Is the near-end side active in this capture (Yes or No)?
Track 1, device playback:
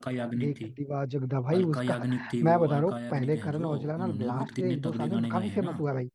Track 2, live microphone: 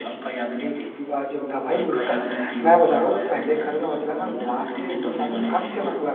No